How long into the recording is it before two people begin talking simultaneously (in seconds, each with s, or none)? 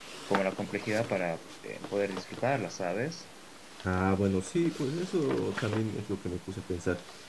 none